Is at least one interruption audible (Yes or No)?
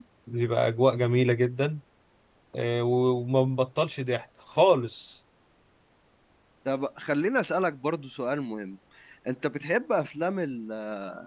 No